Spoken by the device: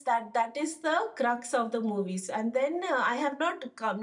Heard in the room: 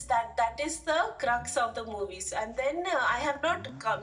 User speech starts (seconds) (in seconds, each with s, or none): none